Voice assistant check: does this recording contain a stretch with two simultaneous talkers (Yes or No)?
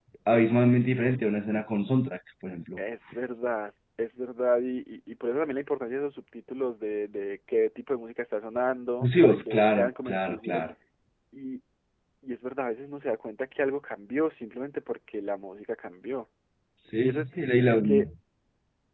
Yes